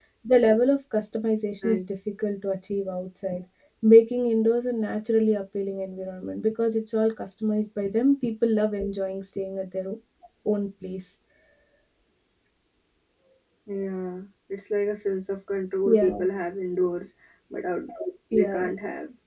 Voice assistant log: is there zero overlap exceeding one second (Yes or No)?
Yes